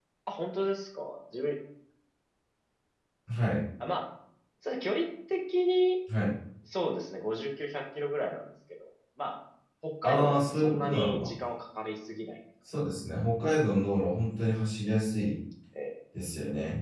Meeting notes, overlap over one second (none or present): present